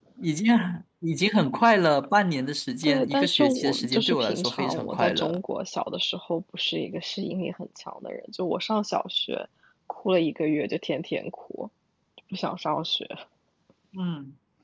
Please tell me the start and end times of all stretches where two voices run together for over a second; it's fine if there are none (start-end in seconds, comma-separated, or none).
2.8-5.4